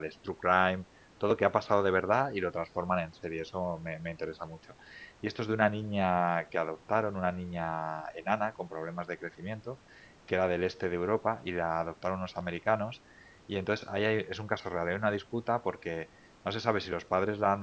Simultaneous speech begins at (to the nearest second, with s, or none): none